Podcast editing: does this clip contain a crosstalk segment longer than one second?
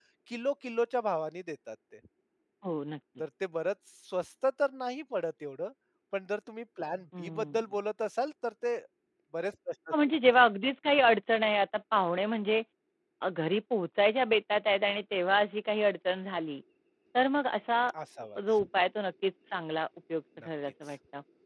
No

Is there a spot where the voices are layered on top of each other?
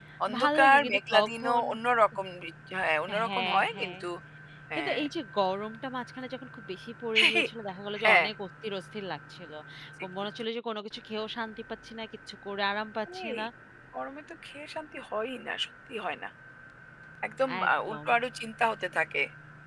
Yes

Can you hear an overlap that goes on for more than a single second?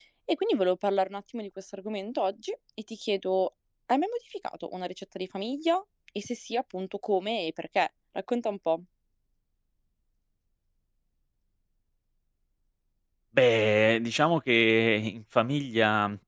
No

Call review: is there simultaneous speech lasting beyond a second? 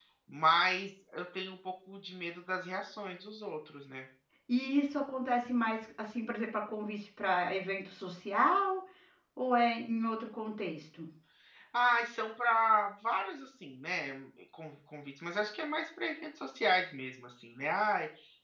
No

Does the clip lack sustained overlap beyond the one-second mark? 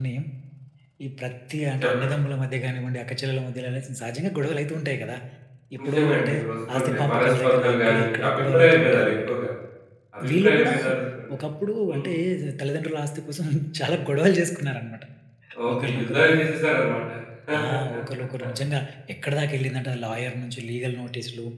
No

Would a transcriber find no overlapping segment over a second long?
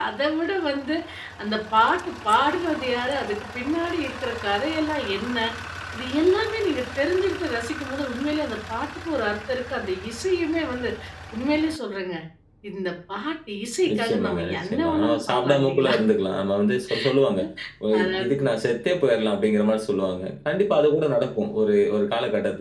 No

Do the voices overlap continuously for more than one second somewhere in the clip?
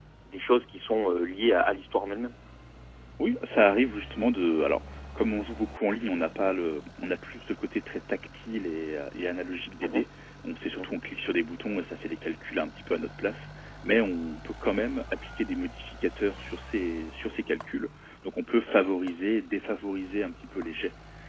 No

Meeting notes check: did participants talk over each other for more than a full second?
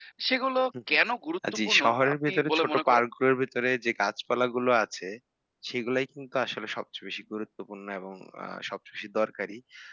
Yes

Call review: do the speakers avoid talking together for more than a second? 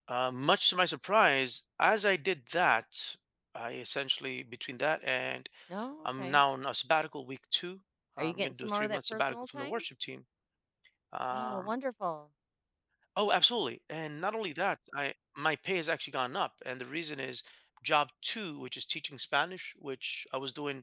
No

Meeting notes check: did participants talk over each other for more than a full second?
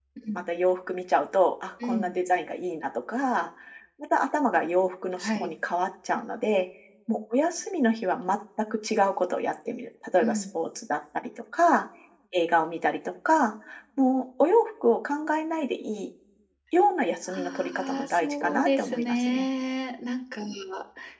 Yes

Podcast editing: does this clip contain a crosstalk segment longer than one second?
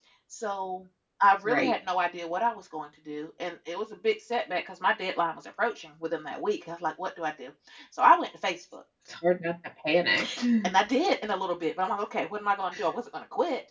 No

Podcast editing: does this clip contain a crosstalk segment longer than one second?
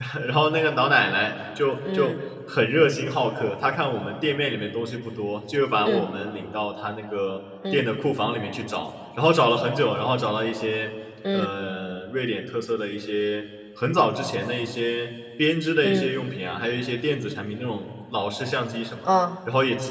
No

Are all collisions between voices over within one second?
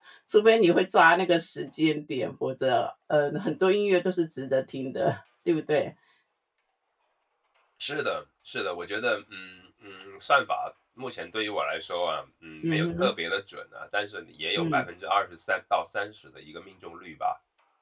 Yes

